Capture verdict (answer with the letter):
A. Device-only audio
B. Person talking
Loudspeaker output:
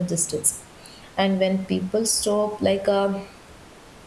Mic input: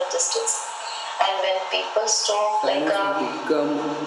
B